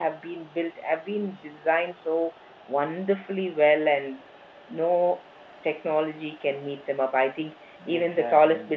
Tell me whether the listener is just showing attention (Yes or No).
Yes